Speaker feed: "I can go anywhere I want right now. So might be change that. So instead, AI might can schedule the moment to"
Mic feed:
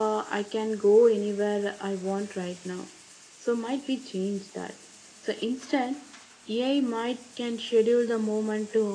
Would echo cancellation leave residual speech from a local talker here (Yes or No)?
No